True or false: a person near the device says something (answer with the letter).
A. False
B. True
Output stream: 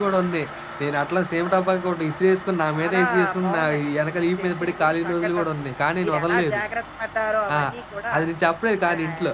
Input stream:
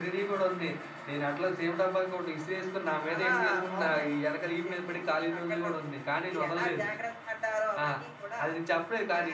A